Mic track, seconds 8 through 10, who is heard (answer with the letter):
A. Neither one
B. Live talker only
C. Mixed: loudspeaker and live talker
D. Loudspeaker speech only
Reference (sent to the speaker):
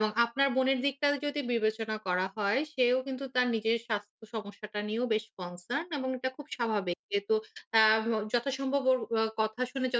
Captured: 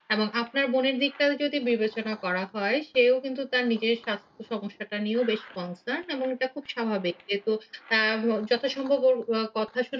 D